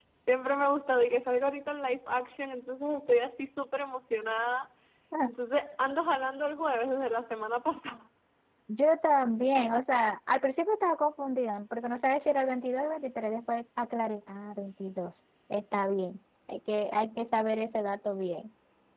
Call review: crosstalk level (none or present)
none